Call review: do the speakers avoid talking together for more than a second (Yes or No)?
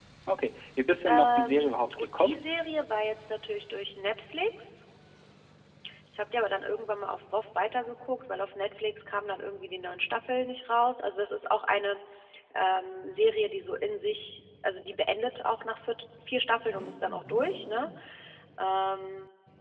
No